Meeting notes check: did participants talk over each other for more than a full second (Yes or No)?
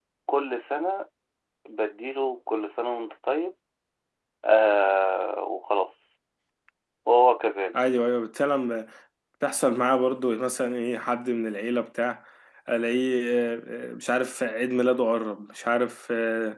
No